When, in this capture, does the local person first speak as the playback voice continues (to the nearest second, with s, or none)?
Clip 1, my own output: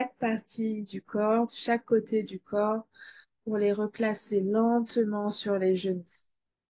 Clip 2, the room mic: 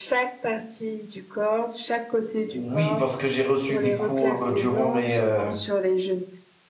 3 s